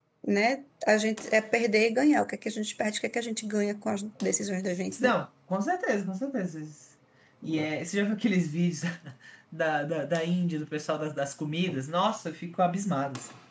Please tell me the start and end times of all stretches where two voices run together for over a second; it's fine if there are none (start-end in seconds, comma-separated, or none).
none